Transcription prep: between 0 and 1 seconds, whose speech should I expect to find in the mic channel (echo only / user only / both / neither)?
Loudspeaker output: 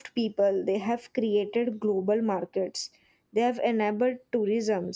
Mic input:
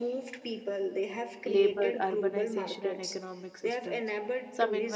echo only